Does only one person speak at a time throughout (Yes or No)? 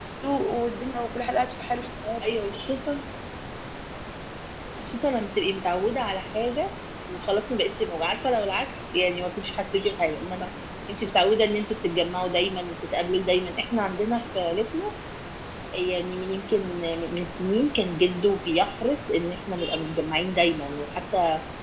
Yes